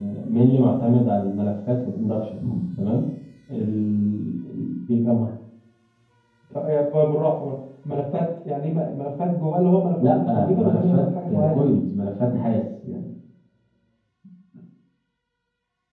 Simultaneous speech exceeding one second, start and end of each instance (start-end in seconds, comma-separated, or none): 10.1-11.6